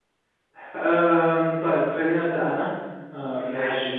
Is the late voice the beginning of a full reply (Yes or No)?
No